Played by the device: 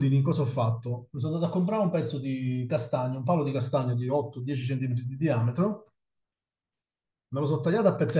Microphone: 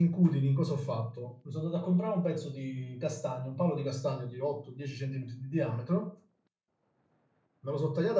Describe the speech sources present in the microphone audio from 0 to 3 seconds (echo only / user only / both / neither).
echo only